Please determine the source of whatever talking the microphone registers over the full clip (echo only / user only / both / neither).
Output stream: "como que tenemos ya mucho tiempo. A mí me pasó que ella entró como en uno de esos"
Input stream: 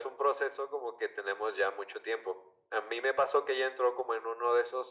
echo only